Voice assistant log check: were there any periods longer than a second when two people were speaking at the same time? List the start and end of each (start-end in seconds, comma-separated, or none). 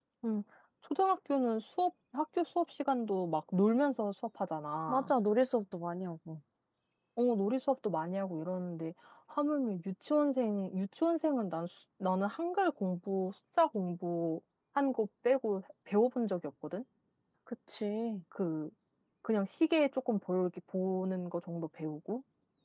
none